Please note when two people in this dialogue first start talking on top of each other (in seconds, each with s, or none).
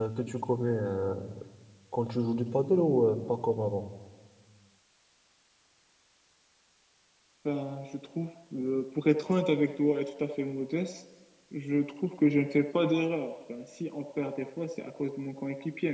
none